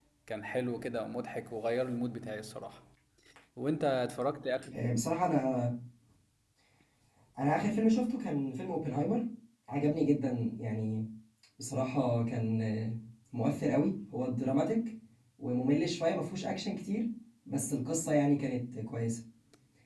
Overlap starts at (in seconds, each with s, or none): none